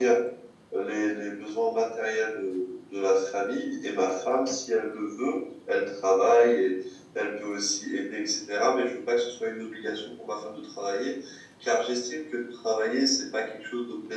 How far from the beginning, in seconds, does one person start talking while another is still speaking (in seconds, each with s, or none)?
none